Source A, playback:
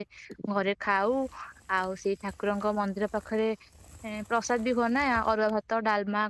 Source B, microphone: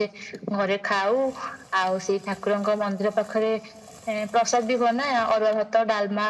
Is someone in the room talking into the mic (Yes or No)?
No